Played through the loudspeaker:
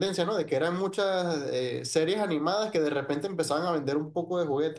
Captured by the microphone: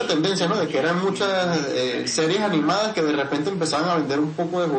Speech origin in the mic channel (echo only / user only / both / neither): both